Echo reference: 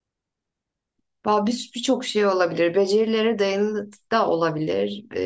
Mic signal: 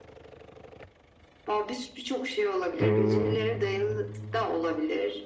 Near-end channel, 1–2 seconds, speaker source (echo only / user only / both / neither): echo only